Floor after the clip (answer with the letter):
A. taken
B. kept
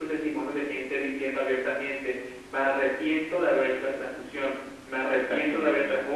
B